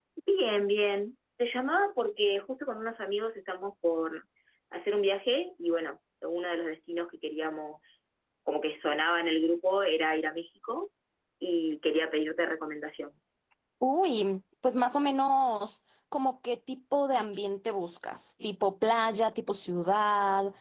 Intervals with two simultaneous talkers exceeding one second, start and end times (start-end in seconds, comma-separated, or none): none